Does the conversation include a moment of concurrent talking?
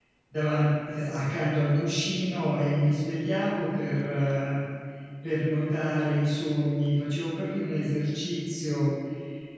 No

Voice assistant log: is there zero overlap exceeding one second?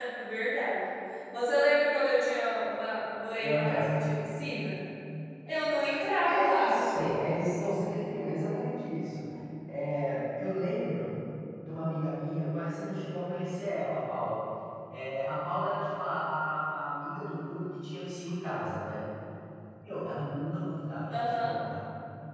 No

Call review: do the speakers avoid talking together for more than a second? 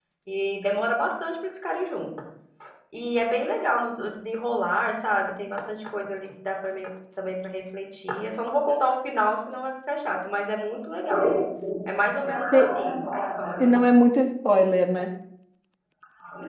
Yes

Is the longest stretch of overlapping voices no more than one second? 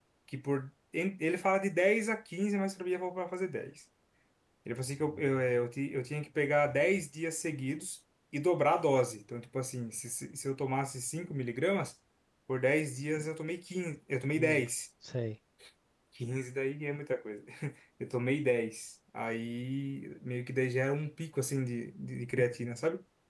Yes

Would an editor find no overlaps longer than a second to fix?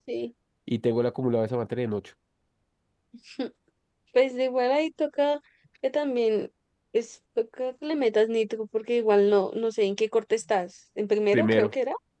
Yes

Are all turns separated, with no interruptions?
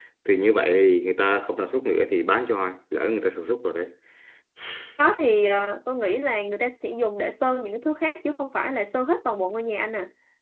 Yes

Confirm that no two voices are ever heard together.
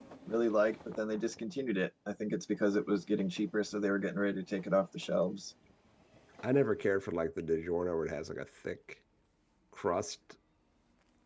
Yes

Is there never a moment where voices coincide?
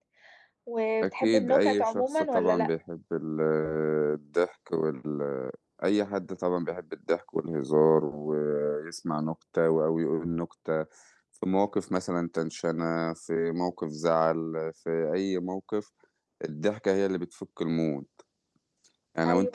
No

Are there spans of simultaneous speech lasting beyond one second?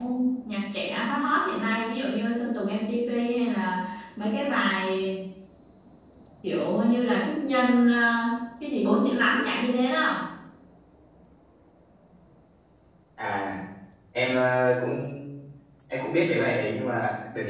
No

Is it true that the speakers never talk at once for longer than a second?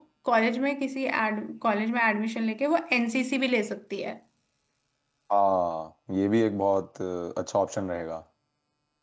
Yes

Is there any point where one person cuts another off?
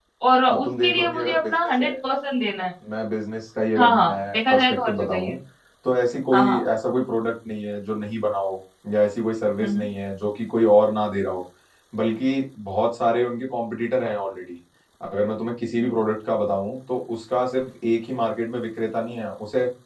Yes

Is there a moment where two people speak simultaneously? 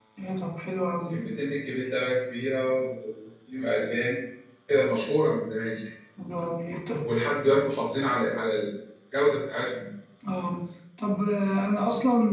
No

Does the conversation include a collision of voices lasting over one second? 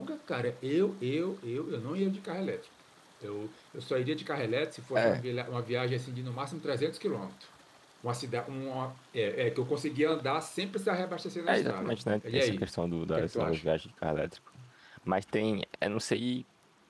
Yes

